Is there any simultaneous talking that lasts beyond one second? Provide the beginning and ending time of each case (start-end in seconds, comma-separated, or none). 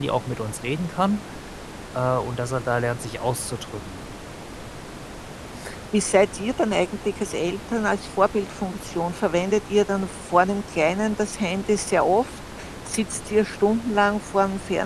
none